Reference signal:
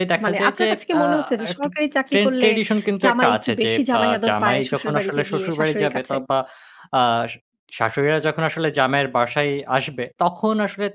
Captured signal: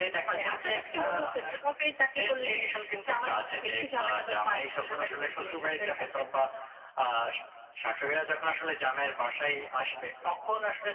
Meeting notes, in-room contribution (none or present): none